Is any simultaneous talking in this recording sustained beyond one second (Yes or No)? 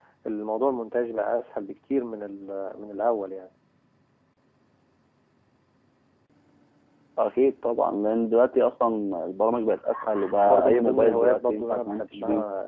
Yes